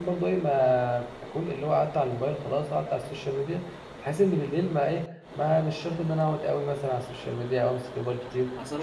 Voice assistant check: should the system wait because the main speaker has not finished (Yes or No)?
No